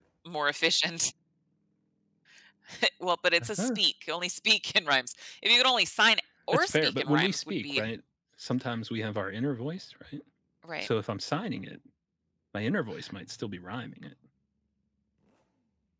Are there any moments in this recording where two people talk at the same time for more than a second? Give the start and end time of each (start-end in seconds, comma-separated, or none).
6.5-7.9